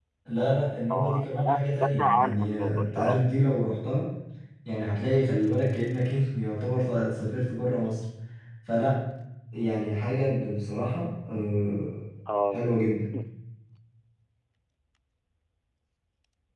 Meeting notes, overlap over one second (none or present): present